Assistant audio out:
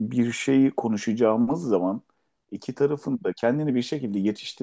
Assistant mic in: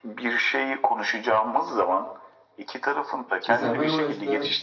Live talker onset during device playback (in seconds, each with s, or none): 3.5 s